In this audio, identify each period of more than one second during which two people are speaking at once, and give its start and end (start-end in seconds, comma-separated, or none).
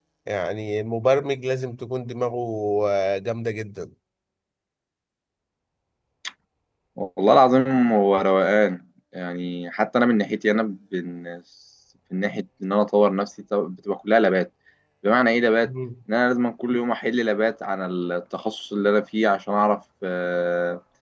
none